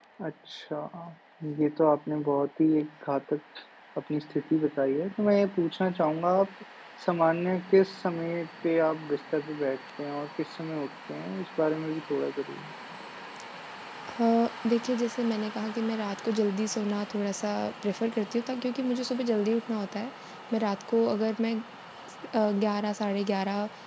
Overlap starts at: none

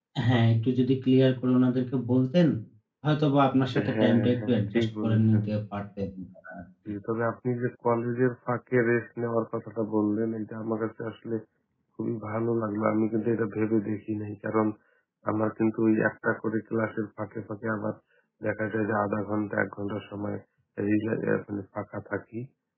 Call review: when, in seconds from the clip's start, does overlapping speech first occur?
3.7 s

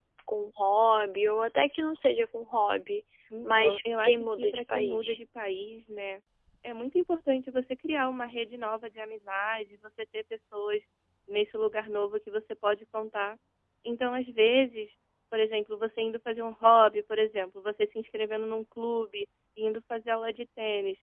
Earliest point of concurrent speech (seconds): 3.4 s

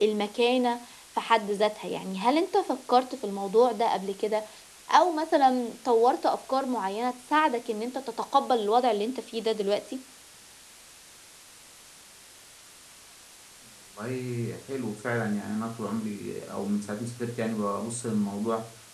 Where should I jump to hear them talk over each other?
none

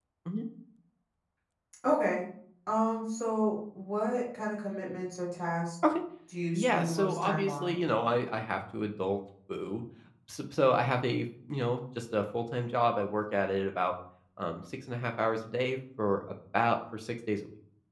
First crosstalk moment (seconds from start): 6.5 s

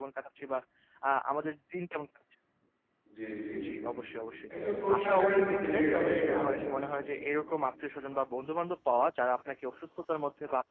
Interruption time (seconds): 5.0 s

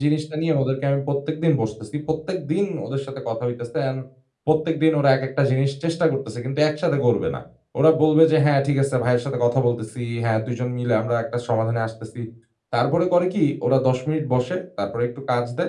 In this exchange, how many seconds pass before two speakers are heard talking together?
none

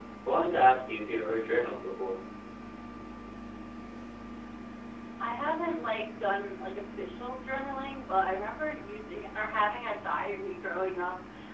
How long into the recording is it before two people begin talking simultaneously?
none

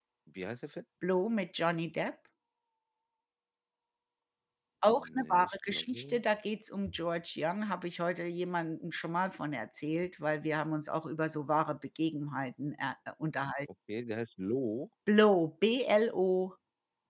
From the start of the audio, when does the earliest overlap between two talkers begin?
4.9 s

